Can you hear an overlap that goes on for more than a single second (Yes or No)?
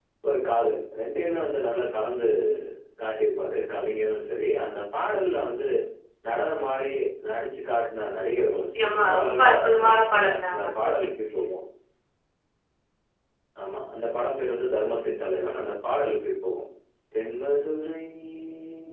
Yes